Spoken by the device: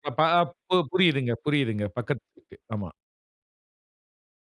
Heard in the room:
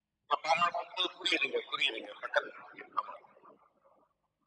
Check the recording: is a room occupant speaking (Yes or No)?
No